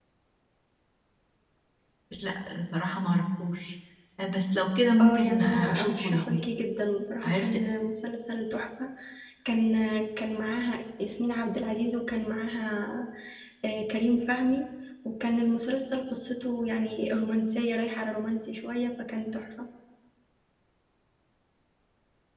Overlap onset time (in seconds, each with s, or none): 5.0 s